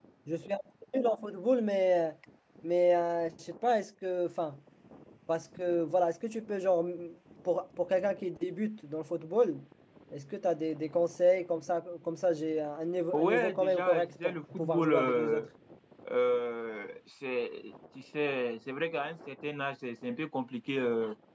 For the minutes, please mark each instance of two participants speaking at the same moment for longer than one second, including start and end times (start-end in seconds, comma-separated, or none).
13.1-15.4